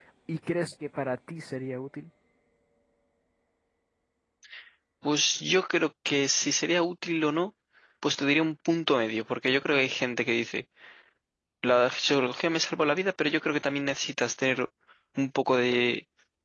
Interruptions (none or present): none